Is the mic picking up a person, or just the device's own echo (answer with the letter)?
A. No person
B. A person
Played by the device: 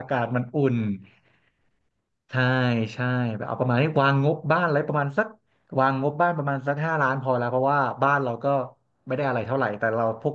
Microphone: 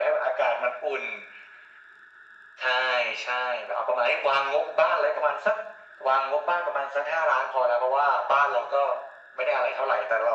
A